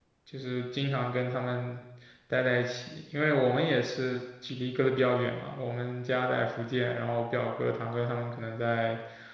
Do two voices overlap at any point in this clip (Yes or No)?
No